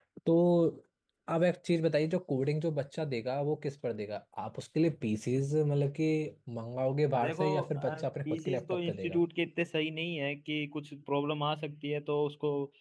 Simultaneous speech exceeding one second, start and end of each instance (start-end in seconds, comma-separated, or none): 7.2-9.2